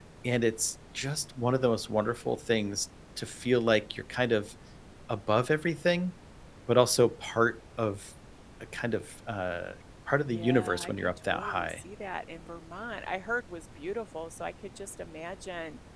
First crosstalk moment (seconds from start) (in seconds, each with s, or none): 10.3 s